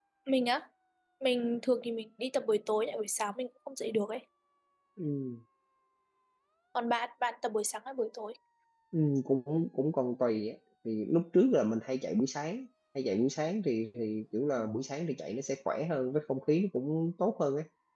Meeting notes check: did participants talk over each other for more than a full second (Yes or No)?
No